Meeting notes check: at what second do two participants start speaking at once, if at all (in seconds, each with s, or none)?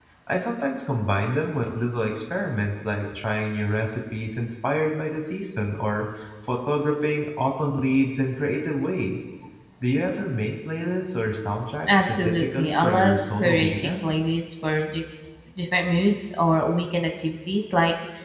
11.9 s